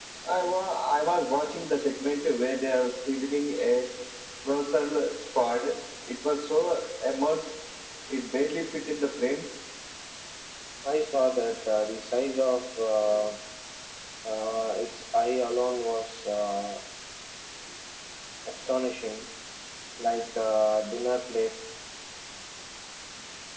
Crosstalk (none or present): none